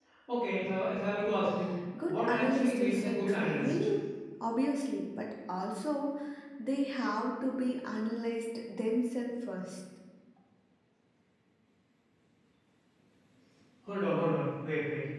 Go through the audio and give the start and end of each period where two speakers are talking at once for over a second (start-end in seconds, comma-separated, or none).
2.0-3.7